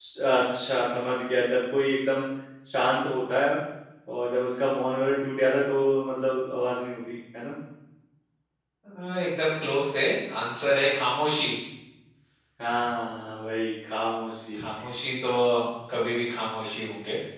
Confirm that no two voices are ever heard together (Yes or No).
Yes